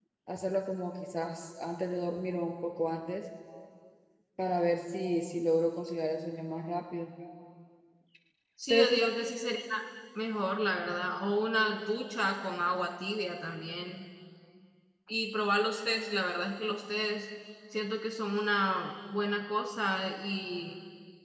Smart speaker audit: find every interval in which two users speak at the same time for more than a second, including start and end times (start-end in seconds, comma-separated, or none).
none